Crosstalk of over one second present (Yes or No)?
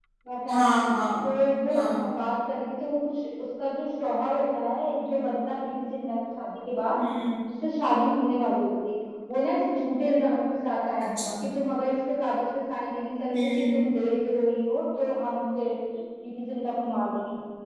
No